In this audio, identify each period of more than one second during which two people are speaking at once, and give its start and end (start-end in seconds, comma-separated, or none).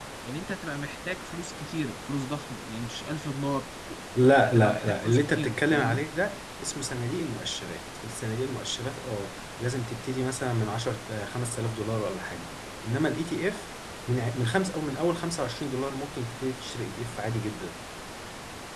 4.4-6.0